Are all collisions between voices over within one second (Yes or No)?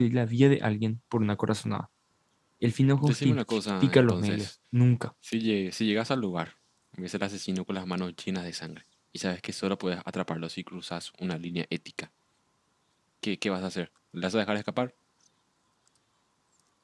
No